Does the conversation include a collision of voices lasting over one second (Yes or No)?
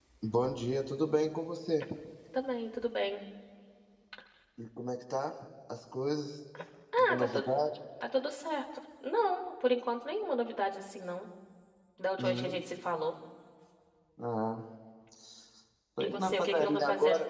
Yes